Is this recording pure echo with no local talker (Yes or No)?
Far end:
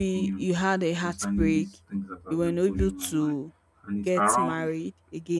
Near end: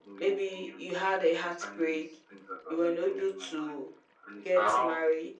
Yes